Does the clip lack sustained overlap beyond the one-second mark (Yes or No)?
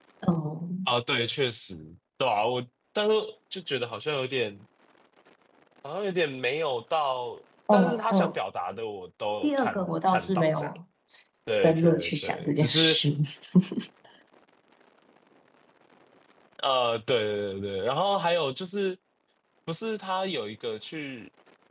No